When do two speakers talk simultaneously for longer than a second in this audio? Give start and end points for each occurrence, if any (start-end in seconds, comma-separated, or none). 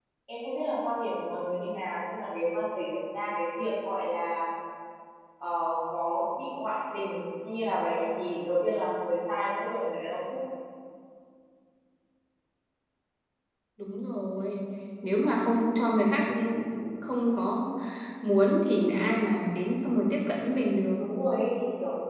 none